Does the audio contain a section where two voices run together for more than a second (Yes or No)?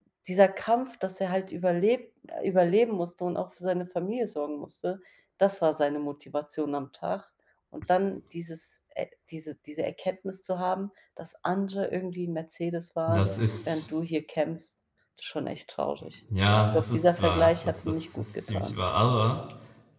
Yes